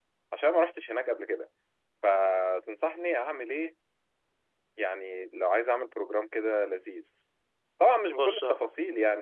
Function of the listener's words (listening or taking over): listening